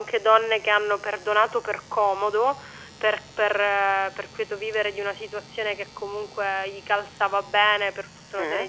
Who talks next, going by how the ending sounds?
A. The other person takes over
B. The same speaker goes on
B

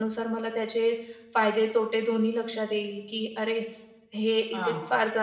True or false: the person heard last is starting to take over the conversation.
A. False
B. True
A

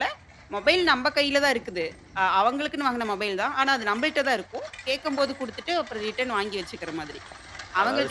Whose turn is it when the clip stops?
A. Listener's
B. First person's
A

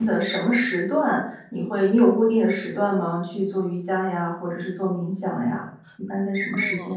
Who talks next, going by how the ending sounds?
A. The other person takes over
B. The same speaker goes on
A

